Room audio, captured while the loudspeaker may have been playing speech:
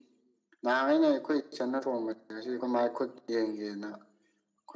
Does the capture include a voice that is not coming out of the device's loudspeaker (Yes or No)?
No